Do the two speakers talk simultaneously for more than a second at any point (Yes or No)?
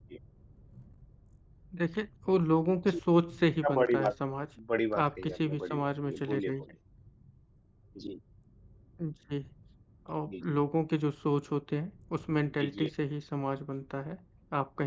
Yes